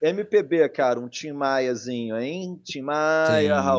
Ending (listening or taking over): taking over